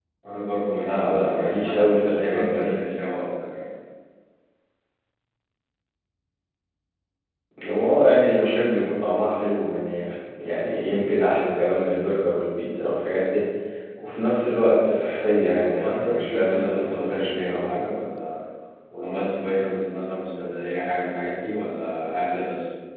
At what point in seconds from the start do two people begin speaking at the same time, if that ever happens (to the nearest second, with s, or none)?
1 s